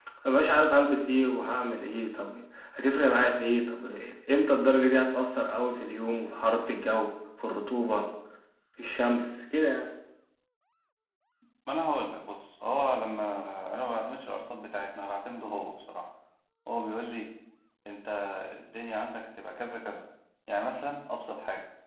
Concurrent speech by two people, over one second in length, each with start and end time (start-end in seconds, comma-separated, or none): none